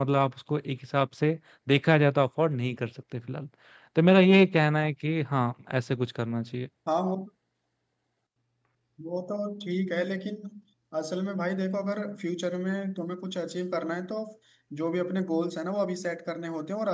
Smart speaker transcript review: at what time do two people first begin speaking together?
none

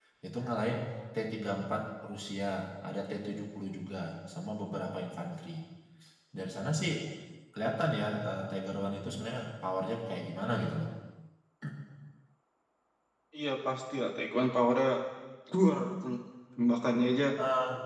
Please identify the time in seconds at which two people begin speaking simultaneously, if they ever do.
none

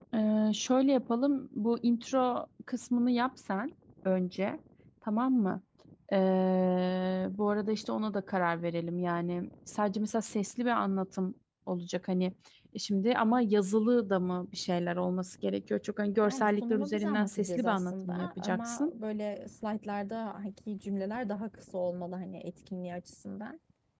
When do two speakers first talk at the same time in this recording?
16.2 s

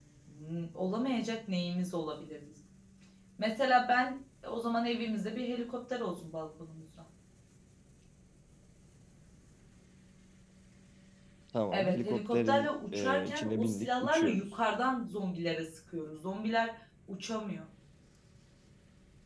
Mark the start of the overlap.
11.7 s

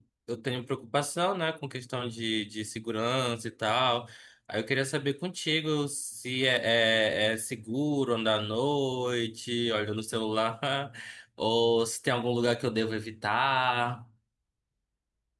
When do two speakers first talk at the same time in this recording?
none

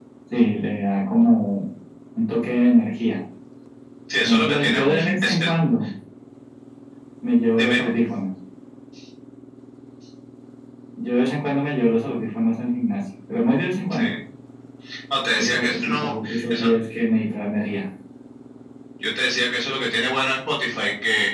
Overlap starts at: 4.2 s

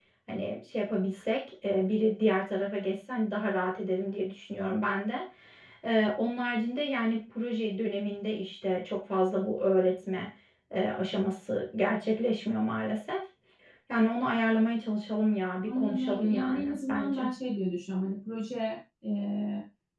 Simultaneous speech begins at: 15.6 s

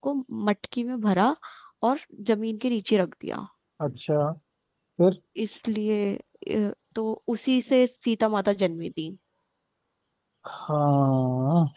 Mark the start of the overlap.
none

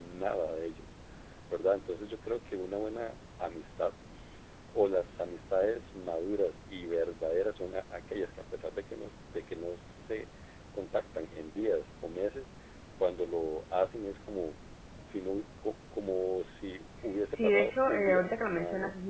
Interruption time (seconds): 17.4 s

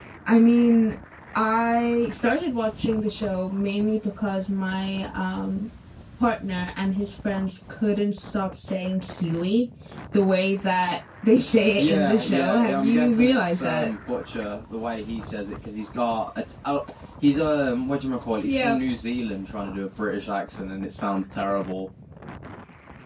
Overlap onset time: 11.8 s

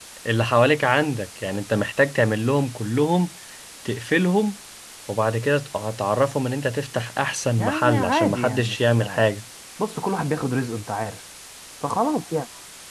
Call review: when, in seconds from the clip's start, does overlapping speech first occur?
7.6 s

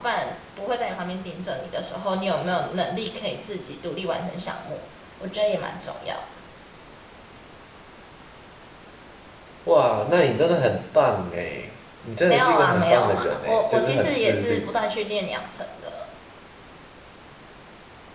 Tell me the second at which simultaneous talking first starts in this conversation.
12.3 s

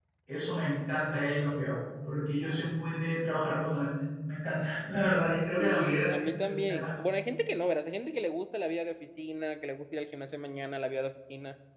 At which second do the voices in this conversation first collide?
5.6 s

